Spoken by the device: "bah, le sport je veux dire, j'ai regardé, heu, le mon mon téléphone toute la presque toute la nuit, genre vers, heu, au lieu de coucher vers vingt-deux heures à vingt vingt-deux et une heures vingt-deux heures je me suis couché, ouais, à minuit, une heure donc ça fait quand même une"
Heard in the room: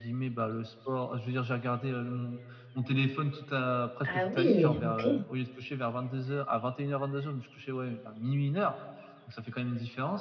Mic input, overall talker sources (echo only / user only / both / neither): both